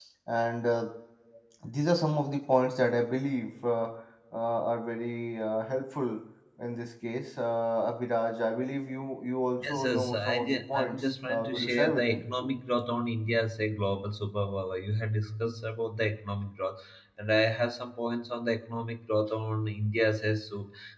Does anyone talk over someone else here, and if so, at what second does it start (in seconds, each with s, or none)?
9.6 s